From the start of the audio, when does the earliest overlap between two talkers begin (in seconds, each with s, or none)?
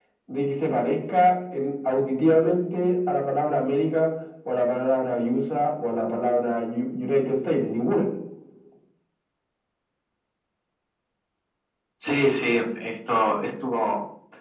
none